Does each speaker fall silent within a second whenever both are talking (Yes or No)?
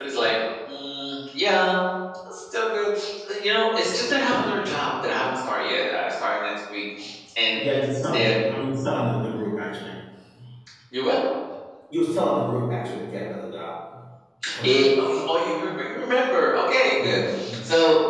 Yes